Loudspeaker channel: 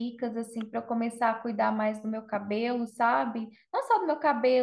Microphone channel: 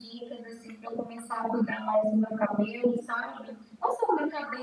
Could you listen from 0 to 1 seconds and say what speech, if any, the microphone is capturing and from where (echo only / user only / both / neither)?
echo only